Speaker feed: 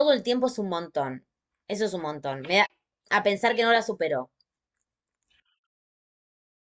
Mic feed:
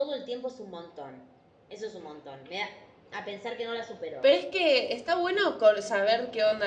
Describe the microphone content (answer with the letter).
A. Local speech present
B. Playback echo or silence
A